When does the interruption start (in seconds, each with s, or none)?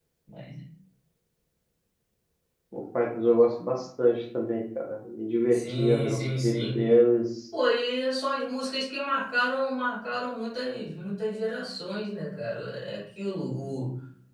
5.5 s